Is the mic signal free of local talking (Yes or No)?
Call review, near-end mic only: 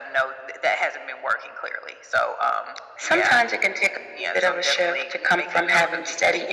Yes